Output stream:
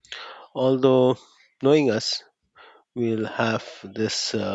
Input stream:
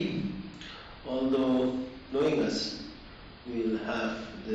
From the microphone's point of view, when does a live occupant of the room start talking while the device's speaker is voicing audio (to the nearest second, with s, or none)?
none